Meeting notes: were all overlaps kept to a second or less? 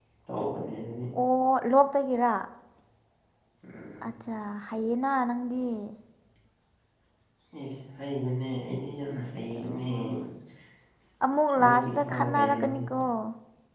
No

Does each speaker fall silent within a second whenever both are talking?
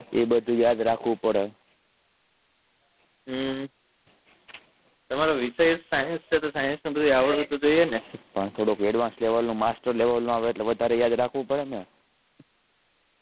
Yes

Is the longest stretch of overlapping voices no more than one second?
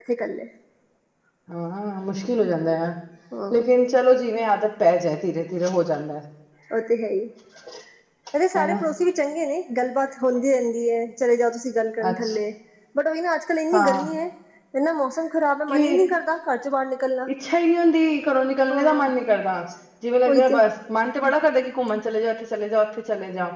Yes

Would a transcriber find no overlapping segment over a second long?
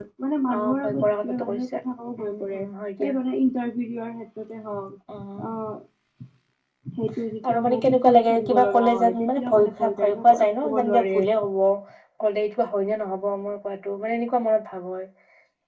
No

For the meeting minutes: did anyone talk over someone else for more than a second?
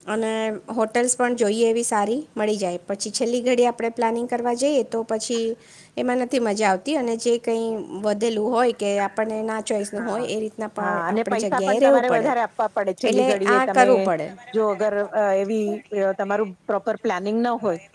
Yes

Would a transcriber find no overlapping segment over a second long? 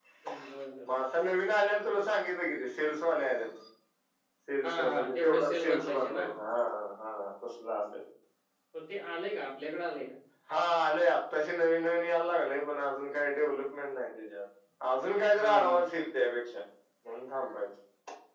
No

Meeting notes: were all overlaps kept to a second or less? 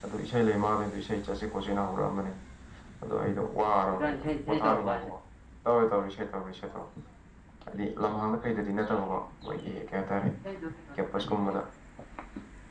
No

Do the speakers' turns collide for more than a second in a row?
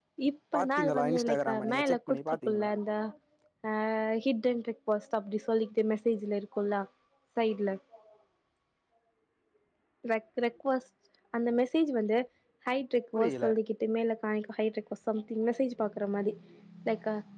Yes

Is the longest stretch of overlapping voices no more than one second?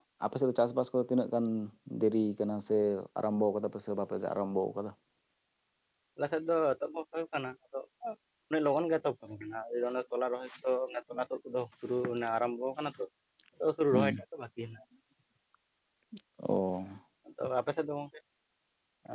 Yes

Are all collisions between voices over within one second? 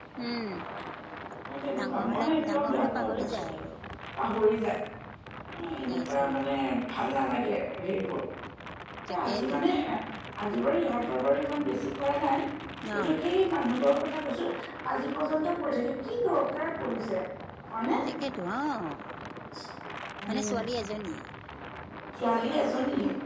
No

